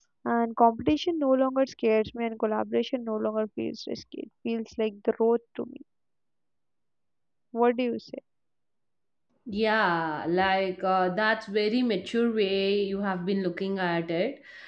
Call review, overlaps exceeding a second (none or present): none